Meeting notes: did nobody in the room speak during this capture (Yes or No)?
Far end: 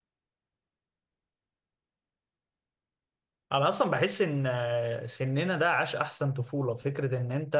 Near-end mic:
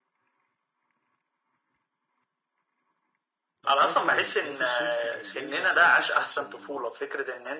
No